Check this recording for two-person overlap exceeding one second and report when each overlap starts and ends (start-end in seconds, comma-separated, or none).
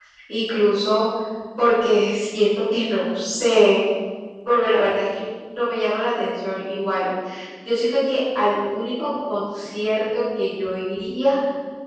none